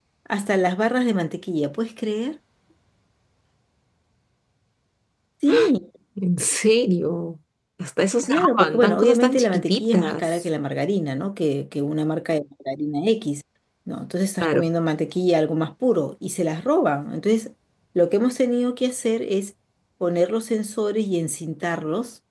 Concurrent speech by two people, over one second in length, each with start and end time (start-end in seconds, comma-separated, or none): 8.3-10.4